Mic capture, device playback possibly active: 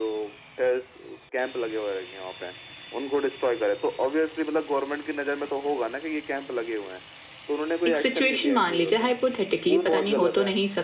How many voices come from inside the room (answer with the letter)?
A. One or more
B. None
A